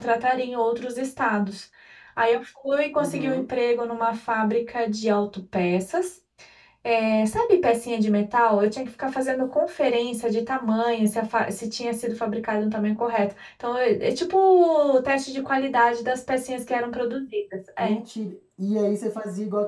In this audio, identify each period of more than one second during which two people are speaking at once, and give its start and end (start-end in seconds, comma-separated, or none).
none